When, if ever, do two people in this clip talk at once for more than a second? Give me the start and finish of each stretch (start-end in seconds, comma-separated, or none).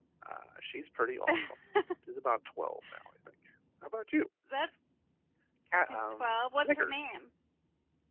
5.8-7.0